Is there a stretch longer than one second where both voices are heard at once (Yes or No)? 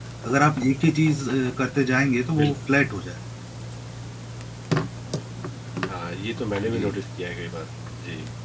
No